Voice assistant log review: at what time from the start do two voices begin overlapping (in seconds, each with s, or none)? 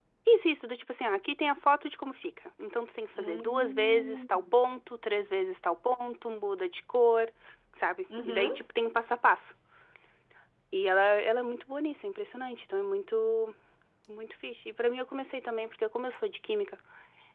3.2 s